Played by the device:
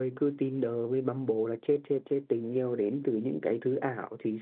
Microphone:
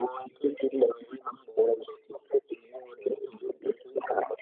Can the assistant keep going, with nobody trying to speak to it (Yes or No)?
Yes